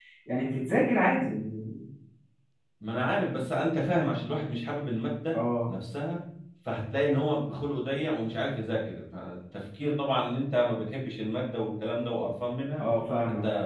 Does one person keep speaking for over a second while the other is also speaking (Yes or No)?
No